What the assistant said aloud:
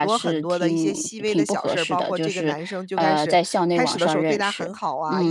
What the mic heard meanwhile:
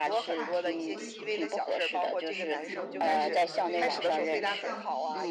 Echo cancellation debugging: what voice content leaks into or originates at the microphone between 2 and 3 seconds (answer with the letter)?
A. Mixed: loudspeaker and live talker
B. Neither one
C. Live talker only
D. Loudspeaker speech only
A